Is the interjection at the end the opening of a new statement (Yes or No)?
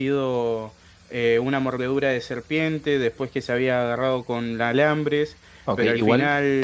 Yes